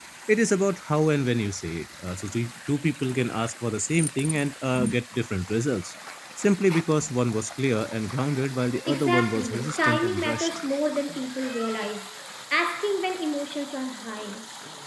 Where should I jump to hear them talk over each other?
8.8 s

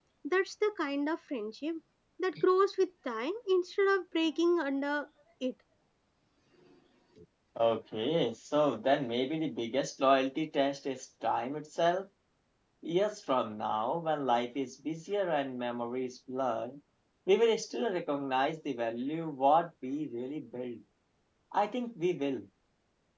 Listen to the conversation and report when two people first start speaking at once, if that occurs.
none

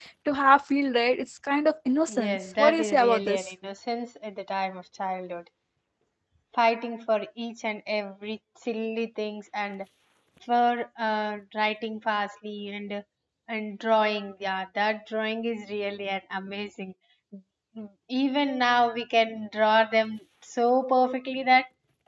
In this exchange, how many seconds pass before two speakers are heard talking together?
2.1 s

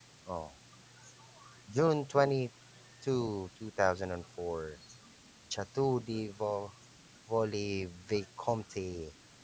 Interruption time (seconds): none

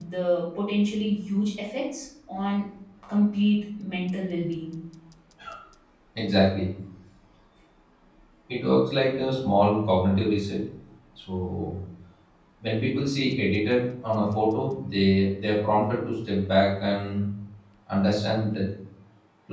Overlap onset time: none

